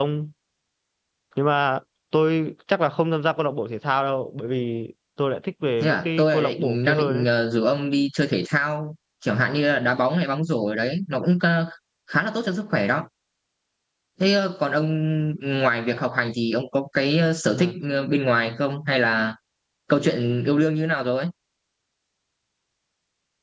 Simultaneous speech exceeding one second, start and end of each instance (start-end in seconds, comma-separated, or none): 5.8-7.2